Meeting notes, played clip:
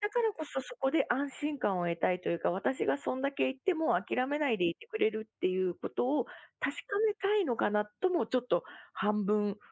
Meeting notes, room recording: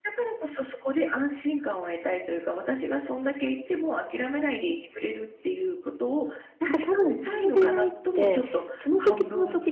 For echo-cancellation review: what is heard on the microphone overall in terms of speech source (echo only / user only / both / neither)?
both